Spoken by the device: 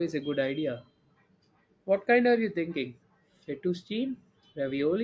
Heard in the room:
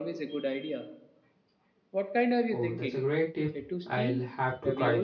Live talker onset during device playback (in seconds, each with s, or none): 2.5 s